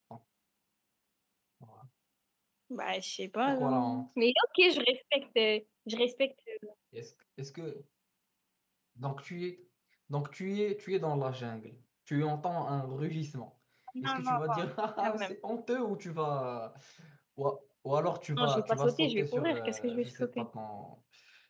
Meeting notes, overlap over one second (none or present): present